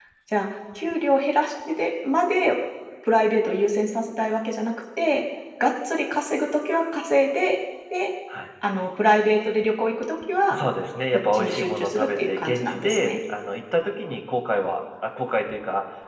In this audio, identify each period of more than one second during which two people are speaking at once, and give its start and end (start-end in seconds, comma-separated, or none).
11.3-13.1